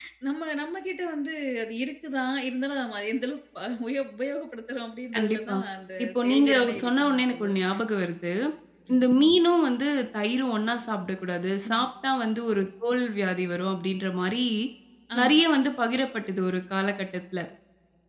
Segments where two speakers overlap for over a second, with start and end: 6.0-7.5

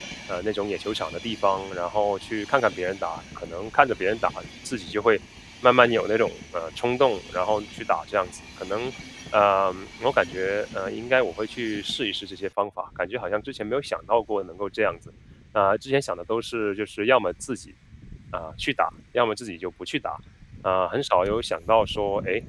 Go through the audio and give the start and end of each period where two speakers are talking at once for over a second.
none

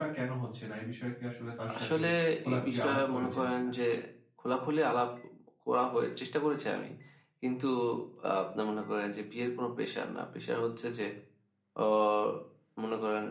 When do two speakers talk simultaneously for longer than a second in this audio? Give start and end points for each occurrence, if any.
2.5-3.7

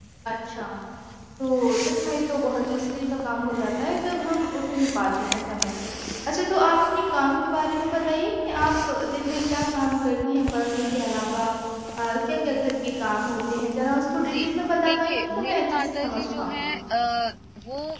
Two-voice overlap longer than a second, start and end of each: 14.8-16.7

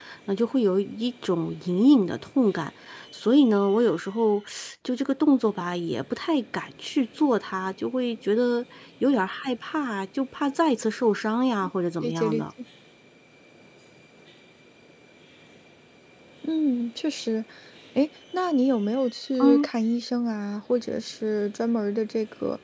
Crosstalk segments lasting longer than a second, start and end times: none

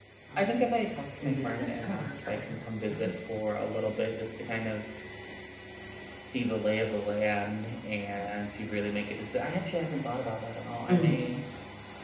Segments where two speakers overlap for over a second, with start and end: 1.2-2.7

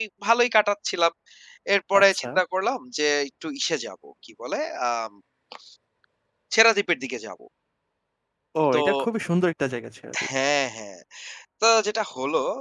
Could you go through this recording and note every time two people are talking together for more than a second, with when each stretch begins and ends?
none

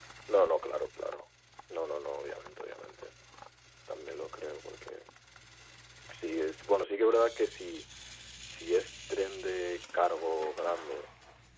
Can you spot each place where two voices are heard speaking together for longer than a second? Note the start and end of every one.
none

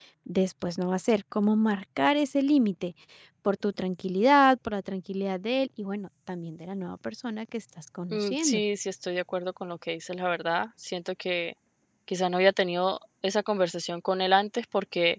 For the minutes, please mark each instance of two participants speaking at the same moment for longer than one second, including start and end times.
none

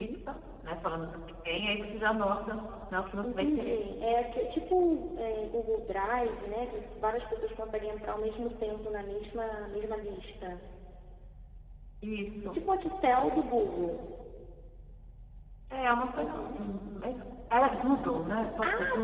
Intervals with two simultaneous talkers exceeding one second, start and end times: none

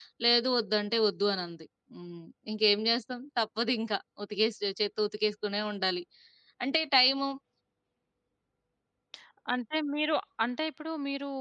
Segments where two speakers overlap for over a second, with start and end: none

